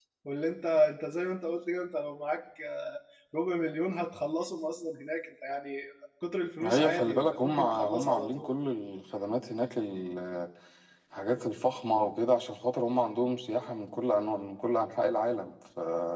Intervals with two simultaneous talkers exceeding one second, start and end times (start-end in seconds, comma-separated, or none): 6.6-8.5